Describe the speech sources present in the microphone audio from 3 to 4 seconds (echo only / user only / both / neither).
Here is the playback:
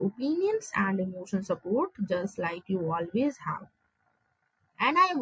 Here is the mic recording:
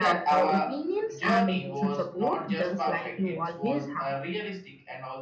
both